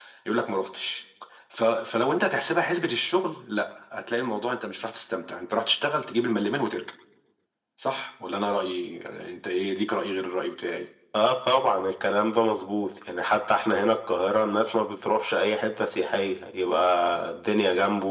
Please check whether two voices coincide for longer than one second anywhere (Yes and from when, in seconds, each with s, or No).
No